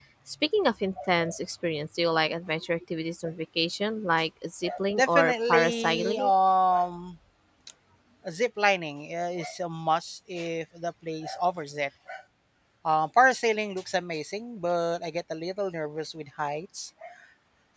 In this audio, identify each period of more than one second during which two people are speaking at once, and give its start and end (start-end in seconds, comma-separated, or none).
5.0-6.3